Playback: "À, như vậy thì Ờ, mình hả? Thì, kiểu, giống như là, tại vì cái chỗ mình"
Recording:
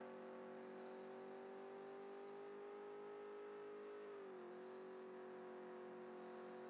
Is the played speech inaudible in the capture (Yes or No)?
Yes